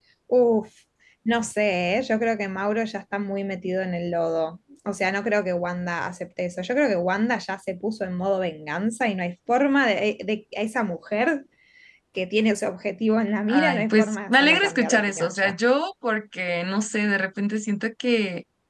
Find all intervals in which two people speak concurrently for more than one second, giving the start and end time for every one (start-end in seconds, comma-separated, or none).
13.5-15.5